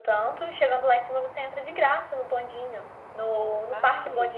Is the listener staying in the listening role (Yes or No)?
Yes